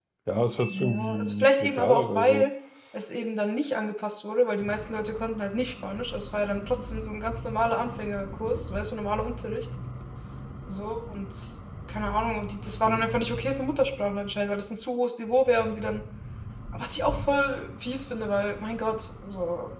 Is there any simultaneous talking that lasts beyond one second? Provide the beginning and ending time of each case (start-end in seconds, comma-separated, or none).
0.7-2.5